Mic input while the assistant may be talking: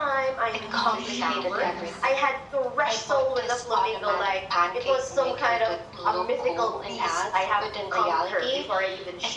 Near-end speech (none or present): present